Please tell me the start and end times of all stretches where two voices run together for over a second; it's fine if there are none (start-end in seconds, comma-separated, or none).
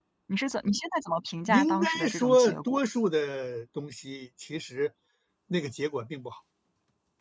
1.5-2.8